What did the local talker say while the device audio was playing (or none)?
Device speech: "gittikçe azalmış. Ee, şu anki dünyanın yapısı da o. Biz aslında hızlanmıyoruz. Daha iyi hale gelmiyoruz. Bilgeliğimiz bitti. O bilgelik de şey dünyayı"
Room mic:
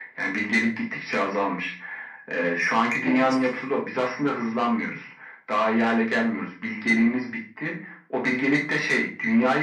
Evet.